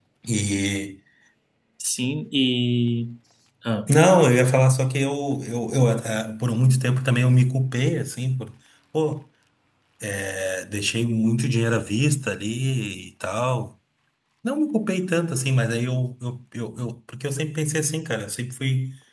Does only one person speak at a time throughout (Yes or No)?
Yes